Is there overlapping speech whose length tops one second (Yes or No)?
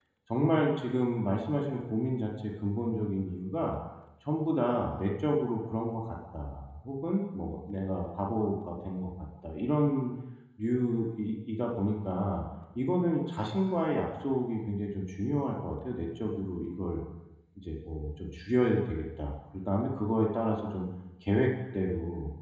No